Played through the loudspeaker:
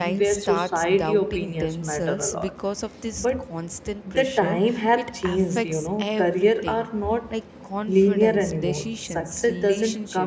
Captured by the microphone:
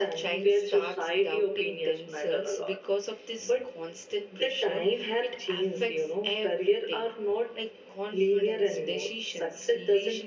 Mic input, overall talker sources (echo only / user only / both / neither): echo only